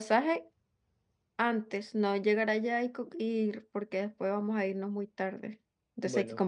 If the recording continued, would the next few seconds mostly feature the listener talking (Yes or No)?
No